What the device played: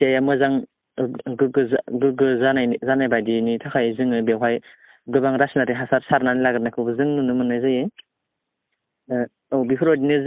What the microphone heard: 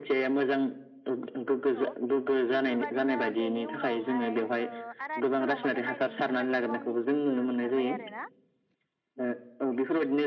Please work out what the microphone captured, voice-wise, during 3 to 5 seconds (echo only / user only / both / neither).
both